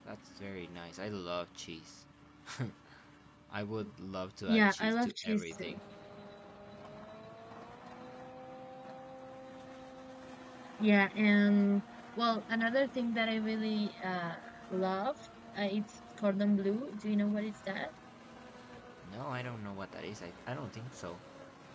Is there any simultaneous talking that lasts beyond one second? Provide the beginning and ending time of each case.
4.5-5.7

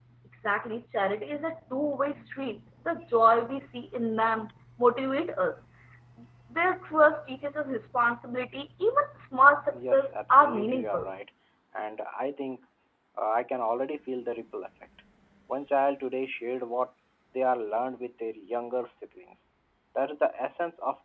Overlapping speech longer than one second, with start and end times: 9.7-11.1

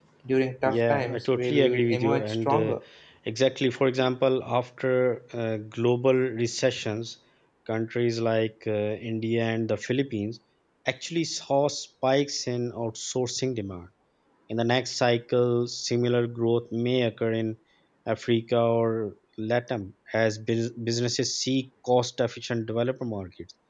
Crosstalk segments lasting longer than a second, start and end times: 0.6-2.8

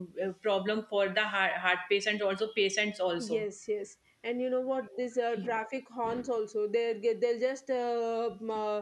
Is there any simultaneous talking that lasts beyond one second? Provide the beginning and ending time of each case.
none

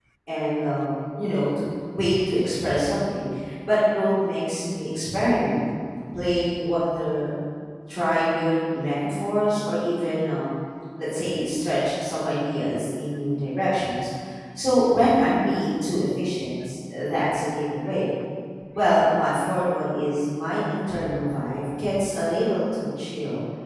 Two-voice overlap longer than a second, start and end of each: none

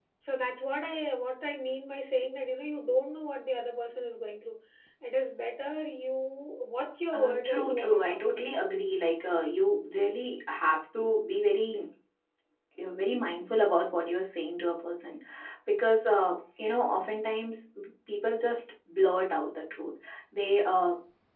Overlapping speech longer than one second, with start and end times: 7.1-8.6

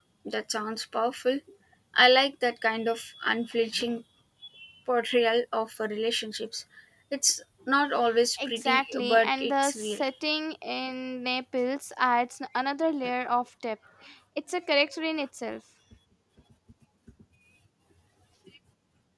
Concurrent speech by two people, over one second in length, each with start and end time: 8.4-10.0

